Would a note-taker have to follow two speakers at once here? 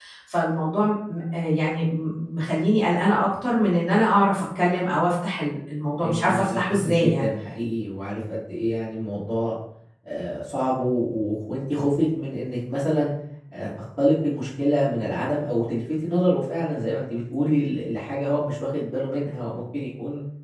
Yes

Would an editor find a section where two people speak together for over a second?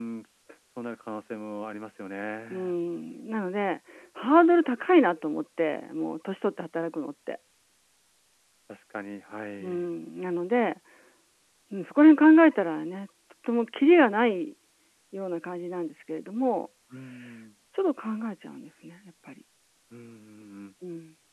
No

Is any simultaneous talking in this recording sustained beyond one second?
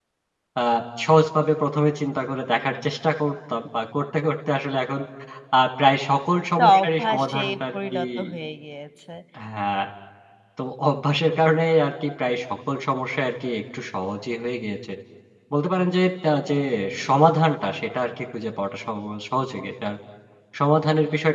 Yes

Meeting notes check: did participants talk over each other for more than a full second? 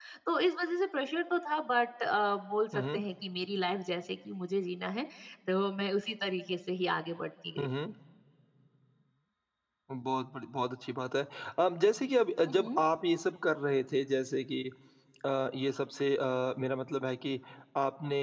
No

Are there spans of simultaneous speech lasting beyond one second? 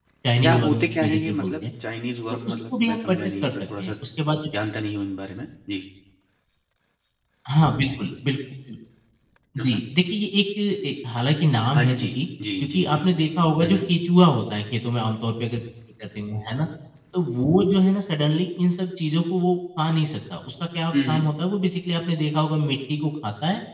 Yes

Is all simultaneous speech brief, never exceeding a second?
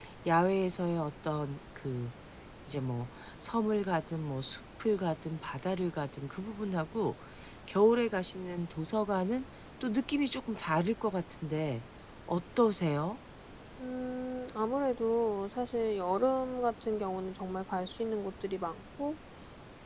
Yes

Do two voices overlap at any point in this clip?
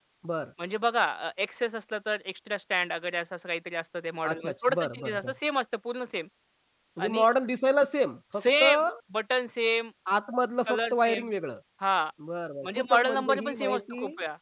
Yes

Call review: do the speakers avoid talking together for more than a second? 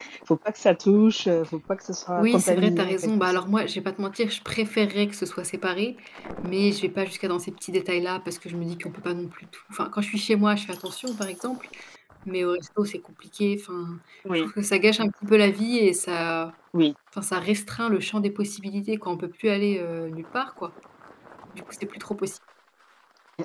No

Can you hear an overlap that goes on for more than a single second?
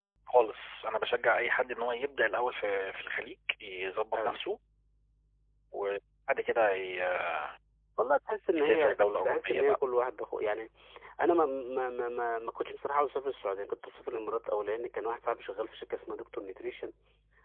Yes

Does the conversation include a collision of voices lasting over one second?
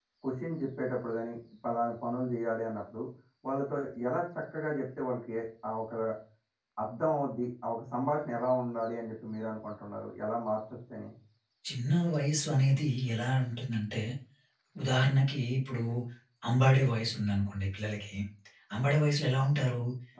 No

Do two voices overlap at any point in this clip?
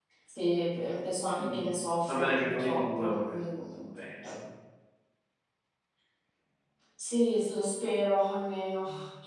Yes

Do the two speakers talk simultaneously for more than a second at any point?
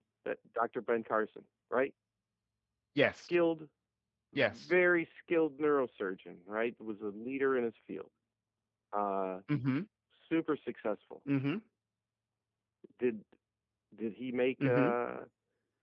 No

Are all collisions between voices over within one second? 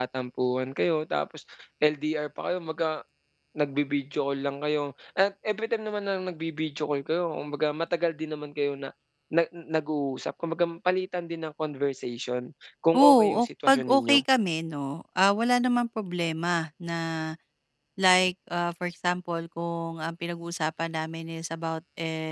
No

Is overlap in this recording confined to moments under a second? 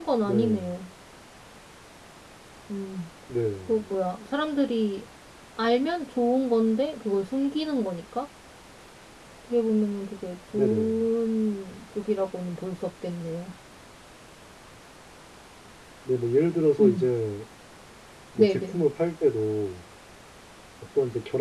Yes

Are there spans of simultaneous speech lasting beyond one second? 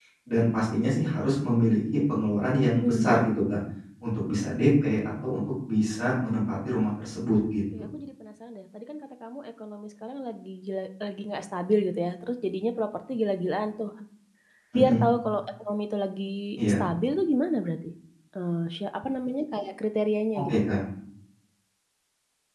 No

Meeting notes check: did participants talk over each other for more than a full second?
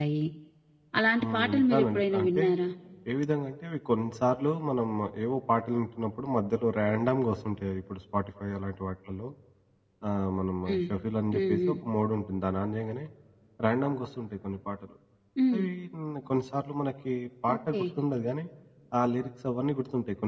Yes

